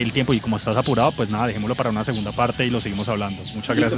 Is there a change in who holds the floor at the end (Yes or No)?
Yes